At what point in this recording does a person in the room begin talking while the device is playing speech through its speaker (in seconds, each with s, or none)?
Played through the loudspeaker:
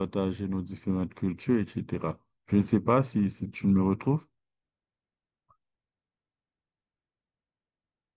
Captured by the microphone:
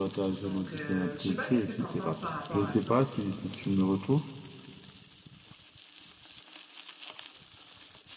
0.4 s